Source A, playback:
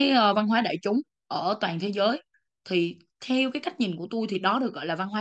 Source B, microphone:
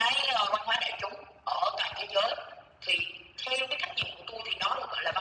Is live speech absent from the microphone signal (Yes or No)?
Yes